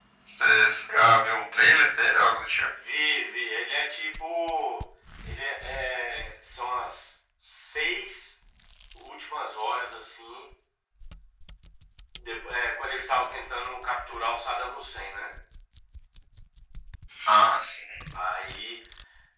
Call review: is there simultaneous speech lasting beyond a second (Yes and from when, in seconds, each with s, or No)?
No